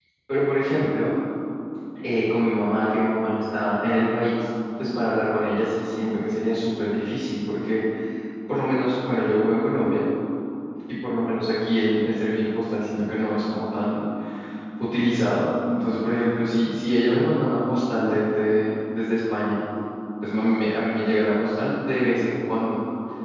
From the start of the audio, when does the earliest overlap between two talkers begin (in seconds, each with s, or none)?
none